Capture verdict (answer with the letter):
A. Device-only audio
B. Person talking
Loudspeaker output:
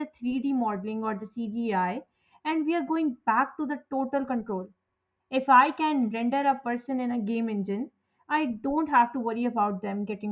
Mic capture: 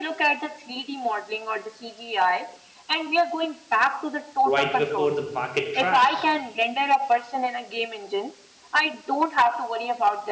B